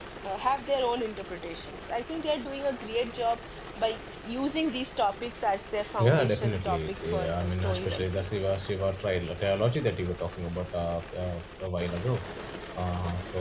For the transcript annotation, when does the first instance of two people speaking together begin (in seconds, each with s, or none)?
5.9 s